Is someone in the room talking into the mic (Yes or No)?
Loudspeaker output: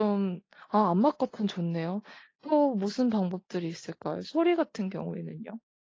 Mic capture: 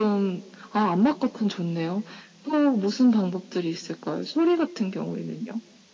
No